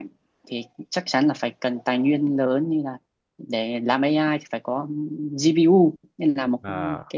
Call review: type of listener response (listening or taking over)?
listening